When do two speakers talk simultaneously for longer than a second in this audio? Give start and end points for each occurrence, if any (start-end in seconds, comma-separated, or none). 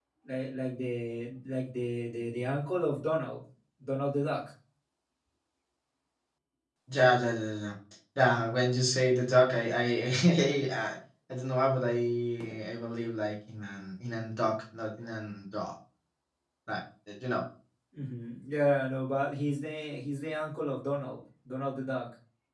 none